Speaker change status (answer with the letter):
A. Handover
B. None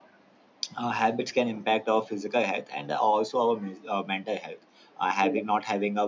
B